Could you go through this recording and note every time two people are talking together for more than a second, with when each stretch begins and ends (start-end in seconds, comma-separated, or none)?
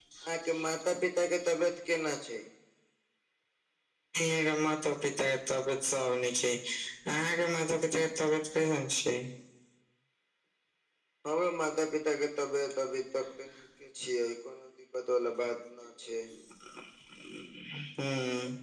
none